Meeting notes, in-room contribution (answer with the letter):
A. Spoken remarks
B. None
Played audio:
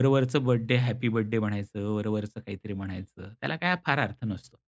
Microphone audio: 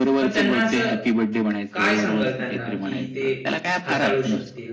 A